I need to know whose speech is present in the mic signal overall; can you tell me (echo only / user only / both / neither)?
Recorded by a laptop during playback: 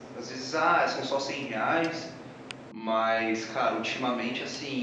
user only